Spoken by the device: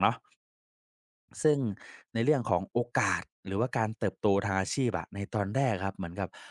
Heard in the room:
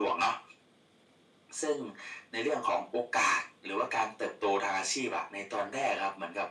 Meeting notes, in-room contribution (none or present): none